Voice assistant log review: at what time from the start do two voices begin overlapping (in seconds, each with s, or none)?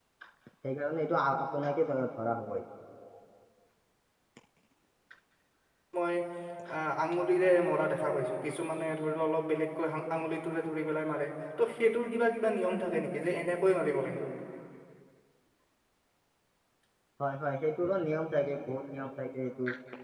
none